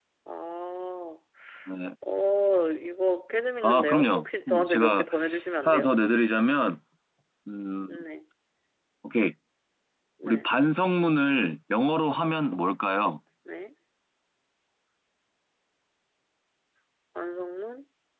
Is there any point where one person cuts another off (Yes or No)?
Yes